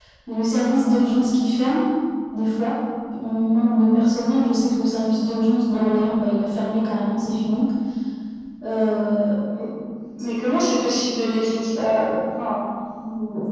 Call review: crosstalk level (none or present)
none